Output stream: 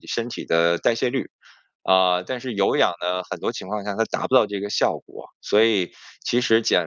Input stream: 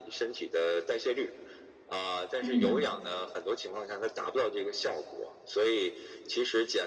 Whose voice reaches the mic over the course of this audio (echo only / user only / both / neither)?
both